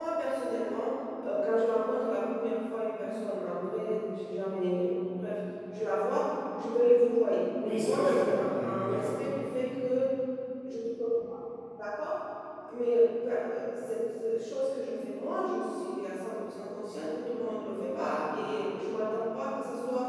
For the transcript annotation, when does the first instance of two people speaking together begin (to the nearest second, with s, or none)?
8 s